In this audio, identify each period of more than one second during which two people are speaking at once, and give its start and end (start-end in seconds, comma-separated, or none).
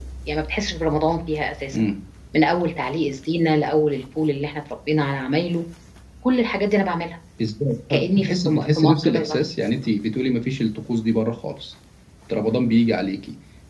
7.9-9.4